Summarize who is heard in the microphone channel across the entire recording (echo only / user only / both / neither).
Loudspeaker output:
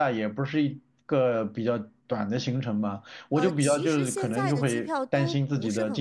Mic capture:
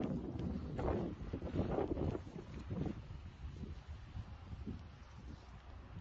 neither